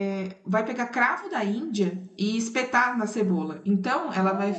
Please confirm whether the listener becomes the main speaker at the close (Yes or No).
No